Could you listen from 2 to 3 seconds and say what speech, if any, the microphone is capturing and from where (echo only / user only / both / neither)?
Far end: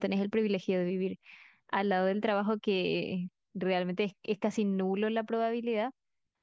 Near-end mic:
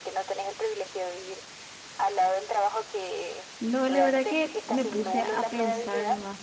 echo only